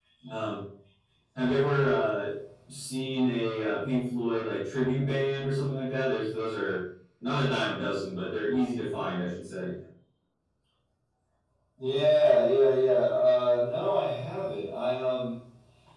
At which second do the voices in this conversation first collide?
none

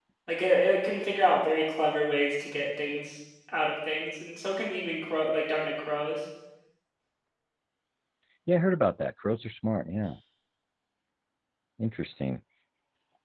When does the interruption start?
none

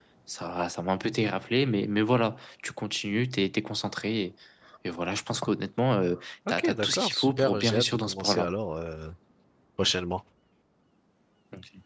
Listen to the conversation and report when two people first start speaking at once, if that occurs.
6.6 s

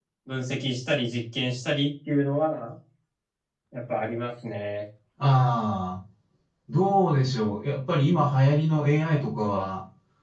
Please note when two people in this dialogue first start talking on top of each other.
none

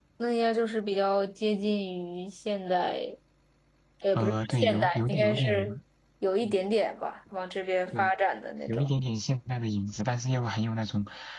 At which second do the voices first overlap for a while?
4.2 s

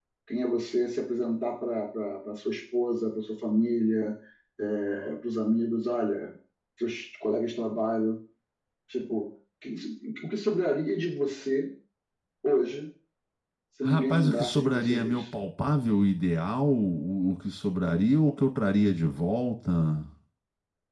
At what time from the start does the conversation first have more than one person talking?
13.8 s

